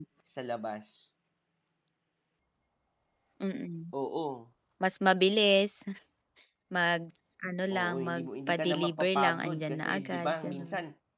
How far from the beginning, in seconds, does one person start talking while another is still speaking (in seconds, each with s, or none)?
7.7 s